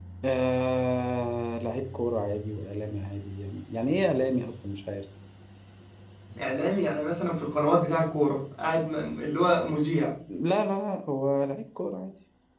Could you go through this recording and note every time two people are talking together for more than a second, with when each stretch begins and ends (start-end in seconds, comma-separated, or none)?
none